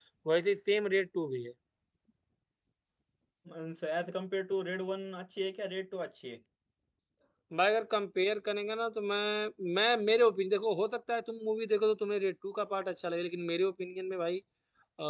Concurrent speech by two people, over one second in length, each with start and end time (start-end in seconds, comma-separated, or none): none